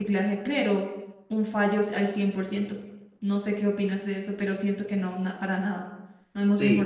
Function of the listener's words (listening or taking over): taking over